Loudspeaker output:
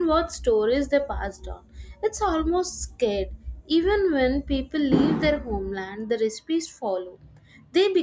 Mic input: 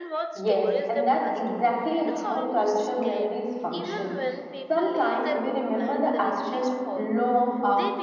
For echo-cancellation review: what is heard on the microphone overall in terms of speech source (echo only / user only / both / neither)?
both